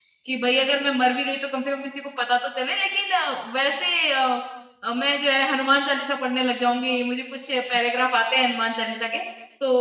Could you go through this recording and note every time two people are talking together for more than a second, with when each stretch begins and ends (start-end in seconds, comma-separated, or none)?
none